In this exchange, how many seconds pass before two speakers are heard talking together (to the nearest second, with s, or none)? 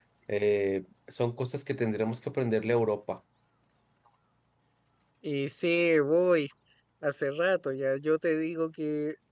none